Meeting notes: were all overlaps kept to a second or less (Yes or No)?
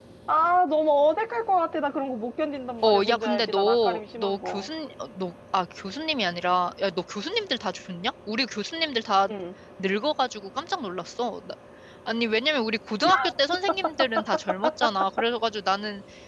No